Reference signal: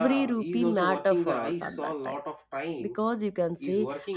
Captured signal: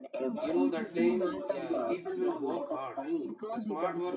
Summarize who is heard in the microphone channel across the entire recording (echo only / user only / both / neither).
both